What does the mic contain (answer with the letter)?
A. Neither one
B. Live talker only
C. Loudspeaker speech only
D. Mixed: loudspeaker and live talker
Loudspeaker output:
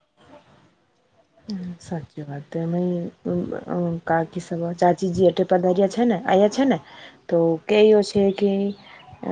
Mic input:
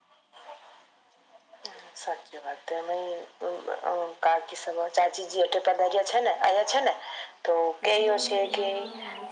D